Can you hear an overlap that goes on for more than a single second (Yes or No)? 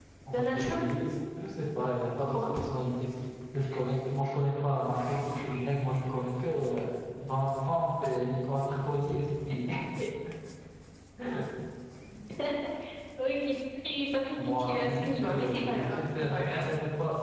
Yes